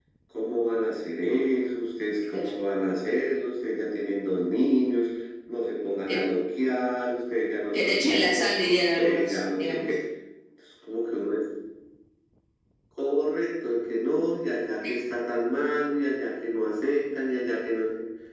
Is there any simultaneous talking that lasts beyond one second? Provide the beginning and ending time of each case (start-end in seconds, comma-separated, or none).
7.7-9.8